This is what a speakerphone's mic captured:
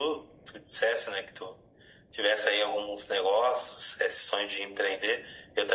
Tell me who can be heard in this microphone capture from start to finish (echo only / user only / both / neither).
echo only